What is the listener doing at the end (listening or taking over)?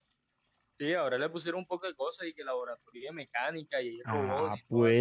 taking over